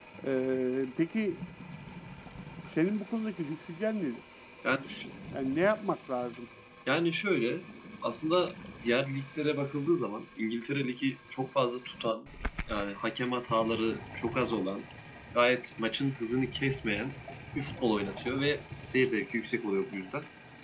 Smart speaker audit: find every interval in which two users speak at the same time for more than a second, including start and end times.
none

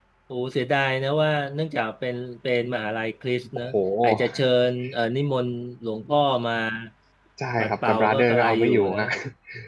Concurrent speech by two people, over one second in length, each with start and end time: 7.6-9.0

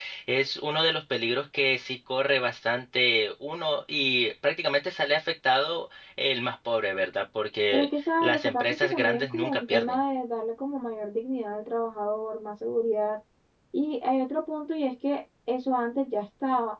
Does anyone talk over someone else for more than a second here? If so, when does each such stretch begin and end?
7.7-10.0

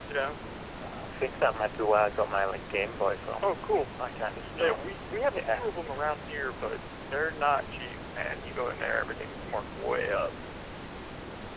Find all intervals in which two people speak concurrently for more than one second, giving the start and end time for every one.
none

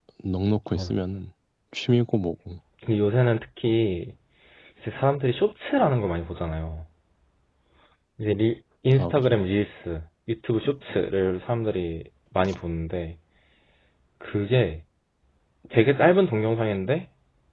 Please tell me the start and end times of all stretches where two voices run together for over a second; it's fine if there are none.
none

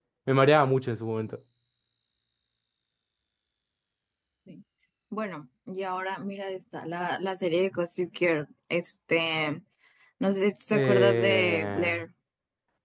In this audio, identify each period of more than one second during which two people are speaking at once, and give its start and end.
10.7-11.9

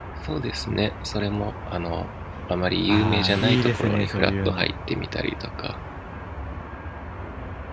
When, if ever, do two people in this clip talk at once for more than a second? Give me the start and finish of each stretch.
2.9-4.7

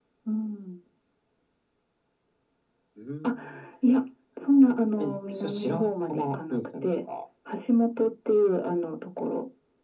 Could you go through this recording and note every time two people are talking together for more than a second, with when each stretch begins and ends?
4.5-6.8

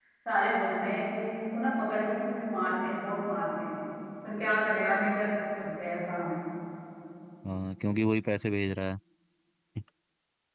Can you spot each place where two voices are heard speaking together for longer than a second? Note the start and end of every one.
none

